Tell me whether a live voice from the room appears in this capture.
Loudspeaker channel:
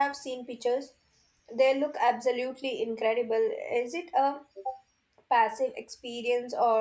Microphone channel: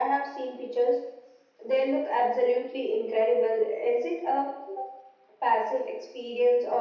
No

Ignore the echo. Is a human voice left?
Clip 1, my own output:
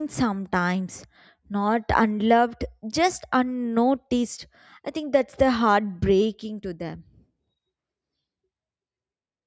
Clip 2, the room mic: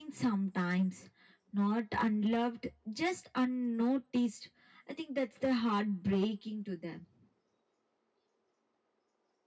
No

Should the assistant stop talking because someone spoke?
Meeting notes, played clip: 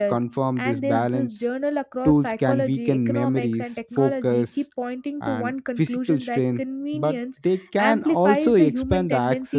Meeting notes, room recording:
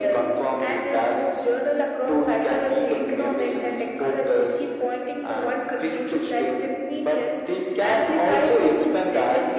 No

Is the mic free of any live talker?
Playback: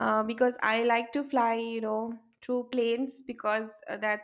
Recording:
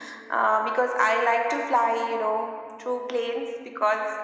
Yes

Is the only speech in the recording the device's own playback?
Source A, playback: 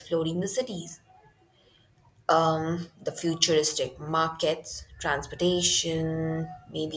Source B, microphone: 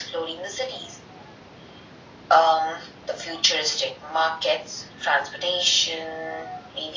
Yes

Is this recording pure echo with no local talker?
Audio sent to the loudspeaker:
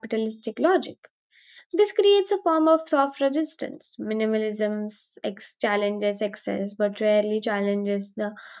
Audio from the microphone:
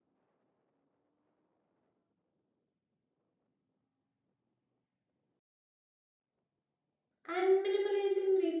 No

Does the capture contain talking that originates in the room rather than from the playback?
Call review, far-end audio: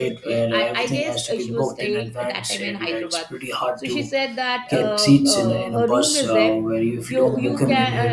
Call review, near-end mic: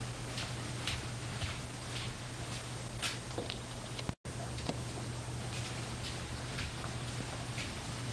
No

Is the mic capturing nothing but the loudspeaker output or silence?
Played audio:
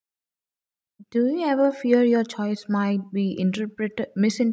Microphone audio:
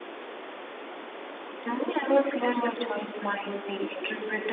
Yes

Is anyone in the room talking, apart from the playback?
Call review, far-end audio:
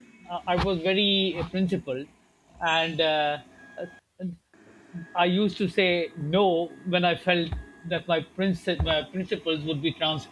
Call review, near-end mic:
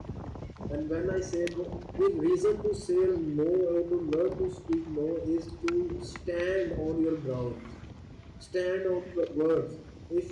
Yes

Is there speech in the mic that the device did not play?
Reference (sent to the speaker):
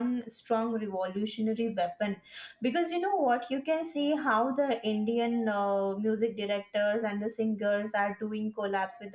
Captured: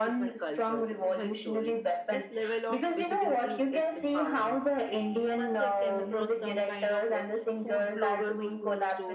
Yes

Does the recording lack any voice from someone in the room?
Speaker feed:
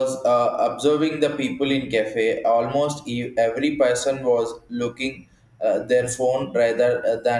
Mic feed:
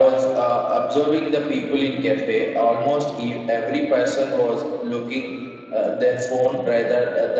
Yes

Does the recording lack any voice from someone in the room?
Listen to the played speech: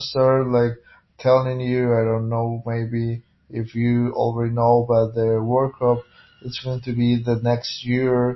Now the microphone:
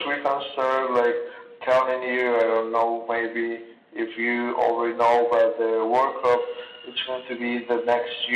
Yes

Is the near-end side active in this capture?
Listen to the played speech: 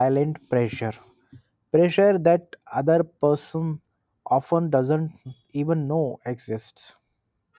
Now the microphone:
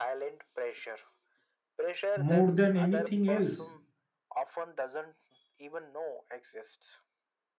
Yes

